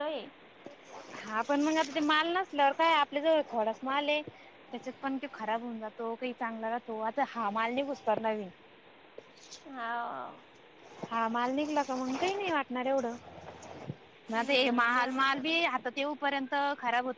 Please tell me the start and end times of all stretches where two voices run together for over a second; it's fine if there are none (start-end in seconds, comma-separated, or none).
14.3-15.6